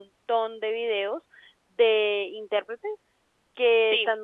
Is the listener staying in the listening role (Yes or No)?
Yes